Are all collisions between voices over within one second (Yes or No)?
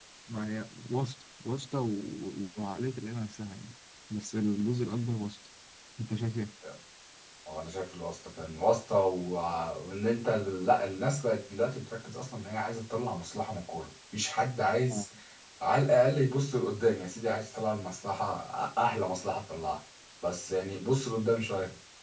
Yes